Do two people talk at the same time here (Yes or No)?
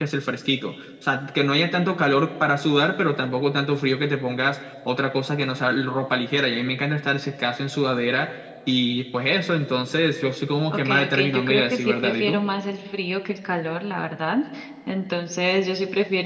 Yes